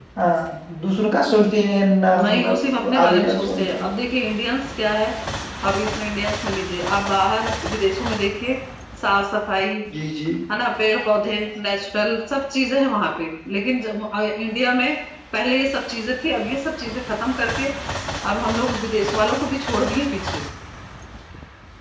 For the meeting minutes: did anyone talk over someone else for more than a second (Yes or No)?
Yes